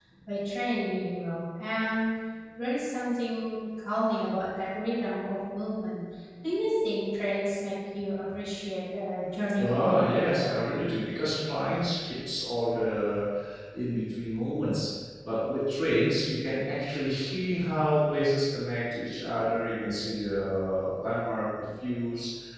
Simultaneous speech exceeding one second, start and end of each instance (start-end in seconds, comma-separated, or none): 9.6-10.9